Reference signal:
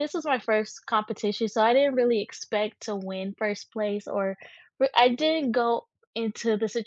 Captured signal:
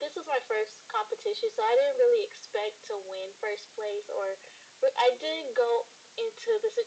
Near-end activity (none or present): none